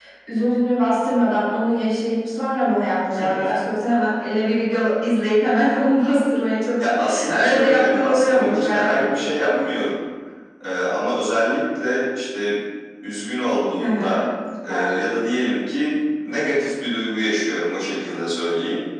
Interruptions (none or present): present